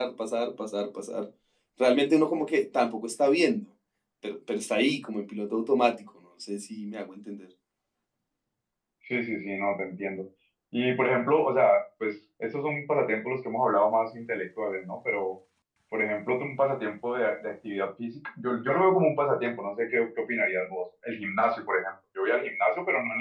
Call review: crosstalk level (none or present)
none